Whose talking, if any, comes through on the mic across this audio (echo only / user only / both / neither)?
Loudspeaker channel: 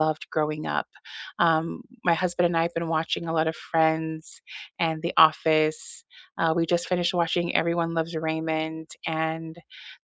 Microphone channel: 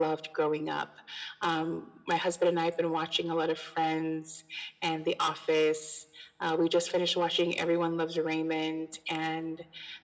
echo only